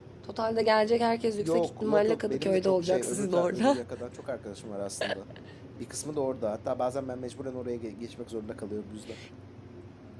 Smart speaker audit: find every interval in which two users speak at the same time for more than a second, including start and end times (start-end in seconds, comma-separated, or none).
1.4-3.8